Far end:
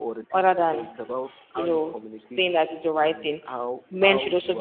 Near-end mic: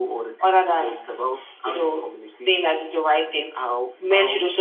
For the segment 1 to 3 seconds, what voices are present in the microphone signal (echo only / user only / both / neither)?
echo only